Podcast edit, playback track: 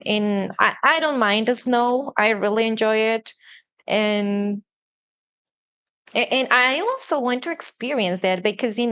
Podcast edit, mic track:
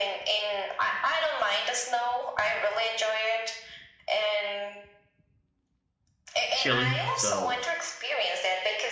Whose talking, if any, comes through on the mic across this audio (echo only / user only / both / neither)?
both